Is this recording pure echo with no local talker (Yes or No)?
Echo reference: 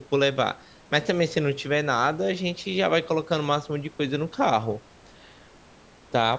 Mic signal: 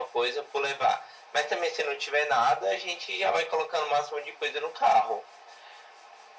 Yes